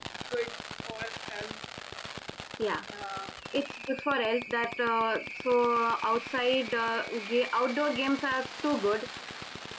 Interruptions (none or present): none